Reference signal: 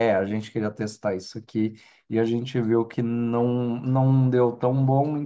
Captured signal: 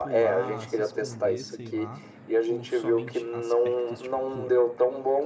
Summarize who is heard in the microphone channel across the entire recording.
both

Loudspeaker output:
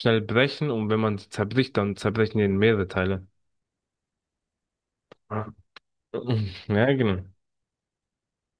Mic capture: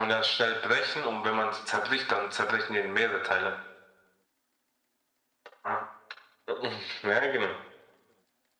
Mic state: echo only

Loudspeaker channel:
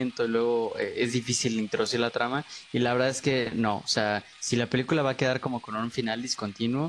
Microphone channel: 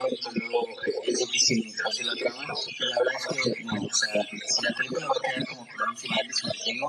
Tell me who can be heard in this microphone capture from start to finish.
echo only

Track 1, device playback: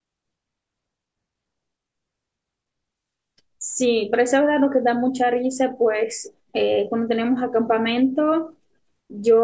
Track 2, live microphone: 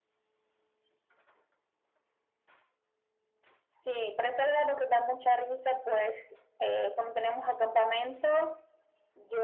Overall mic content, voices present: echo only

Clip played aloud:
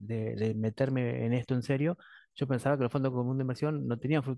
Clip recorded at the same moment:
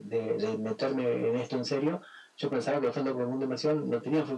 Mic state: echo only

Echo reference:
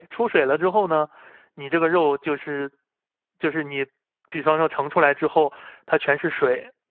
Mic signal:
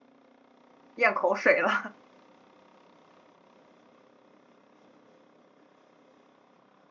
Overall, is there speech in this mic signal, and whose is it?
user only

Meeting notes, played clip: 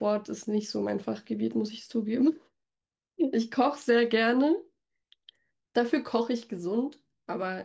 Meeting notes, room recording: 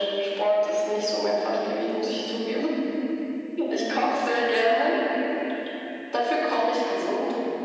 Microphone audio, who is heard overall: echo only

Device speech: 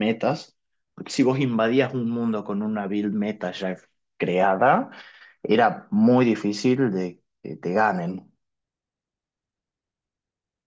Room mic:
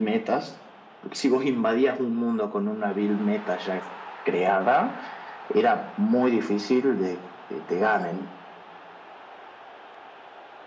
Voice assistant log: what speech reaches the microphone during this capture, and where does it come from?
echo only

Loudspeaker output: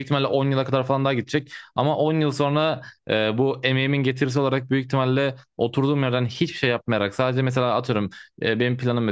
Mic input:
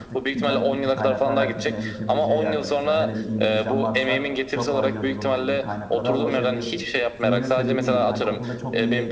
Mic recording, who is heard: both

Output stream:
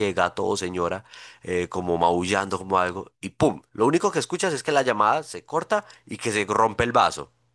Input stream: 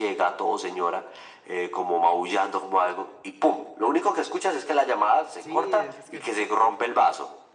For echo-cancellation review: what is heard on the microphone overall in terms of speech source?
both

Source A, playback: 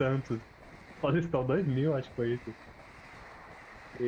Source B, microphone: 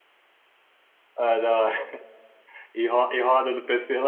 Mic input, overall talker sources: user only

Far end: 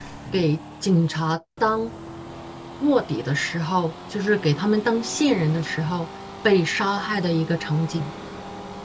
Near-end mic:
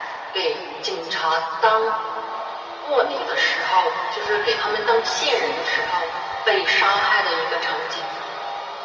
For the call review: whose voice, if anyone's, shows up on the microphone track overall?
echo only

